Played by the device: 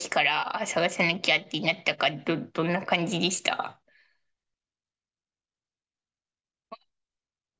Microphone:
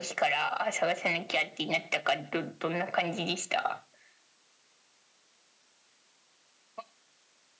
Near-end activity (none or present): none